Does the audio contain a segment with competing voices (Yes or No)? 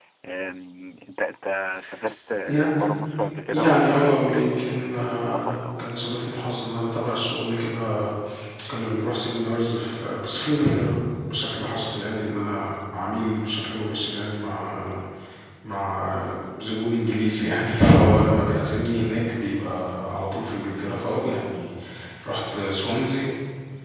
Yes